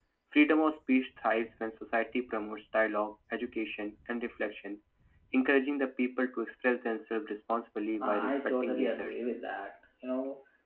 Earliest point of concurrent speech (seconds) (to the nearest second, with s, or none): 8 s